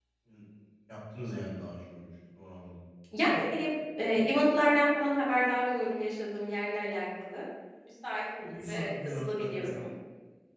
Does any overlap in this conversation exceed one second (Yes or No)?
Yes